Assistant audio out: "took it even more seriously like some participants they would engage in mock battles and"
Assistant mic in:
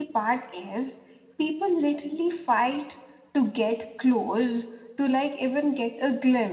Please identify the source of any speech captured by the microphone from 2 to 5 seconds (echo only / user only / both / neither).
user only